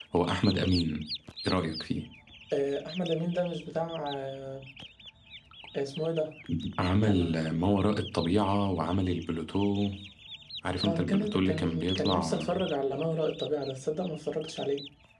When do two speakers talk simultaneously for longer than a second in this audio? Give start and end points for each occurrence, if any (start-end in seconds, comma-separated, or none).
10.8-12.4